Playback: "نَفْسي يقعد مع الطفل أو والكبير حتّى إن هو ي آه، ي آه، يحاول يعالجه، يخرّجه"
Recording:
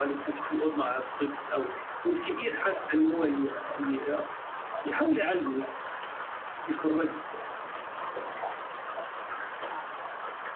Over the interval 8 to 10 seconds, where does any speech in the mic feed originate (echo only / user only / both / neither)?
neither